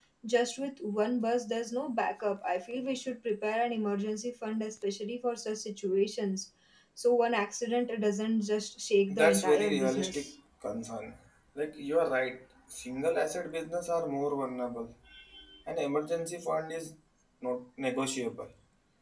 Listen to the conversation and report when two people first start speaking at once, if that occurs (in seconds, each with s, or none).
9.1 s